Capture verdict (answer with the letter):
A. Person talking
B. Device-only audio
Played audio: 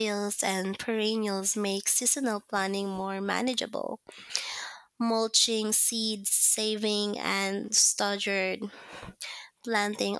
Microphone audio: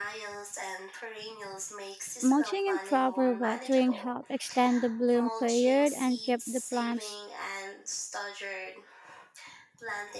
A